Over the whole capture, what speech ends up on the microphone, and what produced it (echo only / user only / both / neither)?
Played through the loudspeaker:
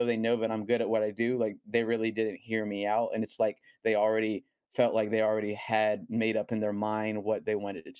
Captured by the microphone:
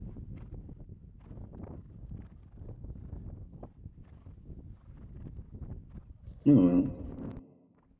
user only